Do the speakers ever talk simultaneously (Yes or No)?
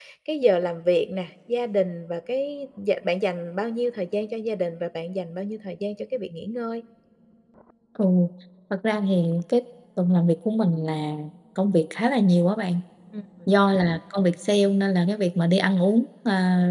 No